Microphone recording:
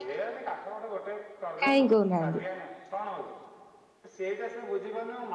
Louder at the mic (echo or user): user